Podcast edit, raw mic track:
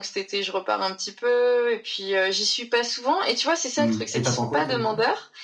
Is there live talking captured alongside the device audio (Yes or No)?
Yes